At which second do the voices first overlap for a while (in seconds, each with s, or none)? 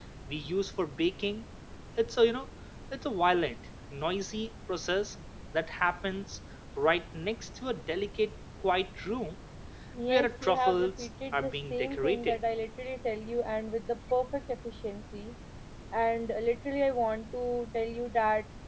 10.1 s